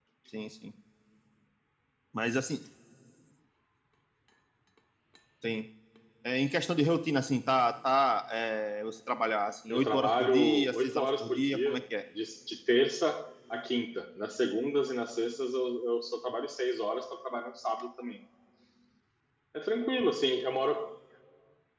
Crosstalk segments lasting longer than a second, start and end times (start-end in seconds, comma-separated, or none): 9.7-11.8